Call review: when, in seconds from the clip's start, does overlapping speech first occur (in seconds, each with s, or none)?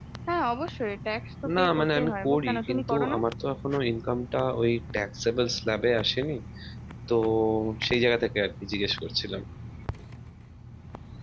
1.4 s